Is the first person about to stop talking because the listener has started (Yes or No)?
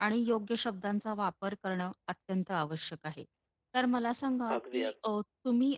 No